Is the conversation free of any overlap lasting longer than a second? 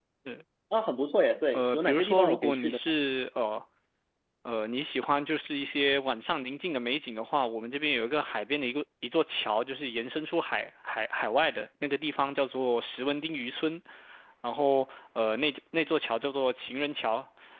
No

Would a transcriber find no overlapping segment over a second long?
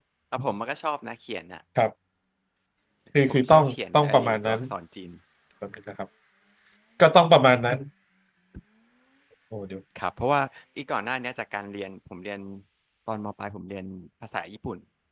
No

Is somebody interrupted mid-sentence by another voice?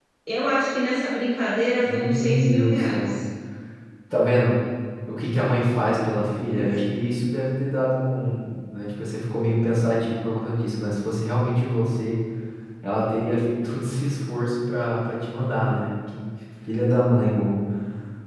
Yes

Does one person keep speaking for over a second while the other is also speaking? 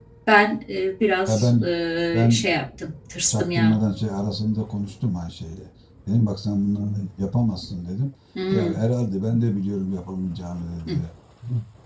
No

